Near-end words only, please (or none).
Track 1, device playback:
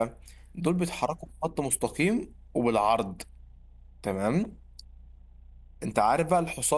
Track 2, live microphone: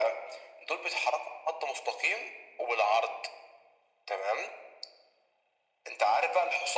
none